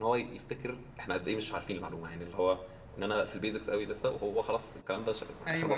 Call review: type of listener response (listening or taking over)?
taking over